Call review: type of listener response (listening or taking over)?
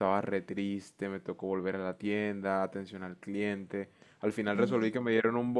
listening